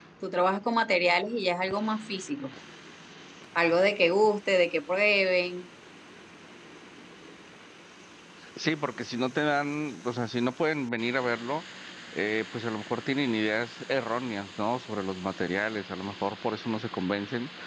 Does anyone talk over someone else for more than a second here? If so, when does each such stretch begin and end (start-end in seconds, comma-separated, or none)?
none